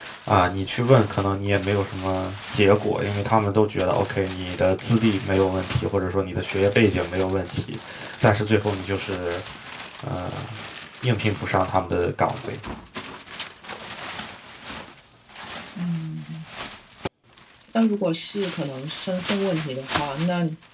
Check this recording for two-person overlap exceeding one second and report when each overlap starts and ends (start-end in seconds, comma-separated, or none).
none